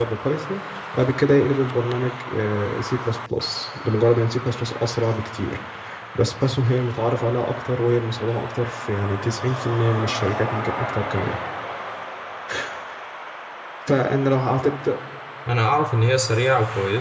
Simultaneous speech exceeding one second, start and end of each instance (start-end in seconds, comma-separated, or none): none